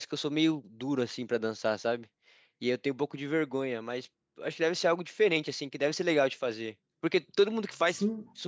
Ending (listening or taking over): listening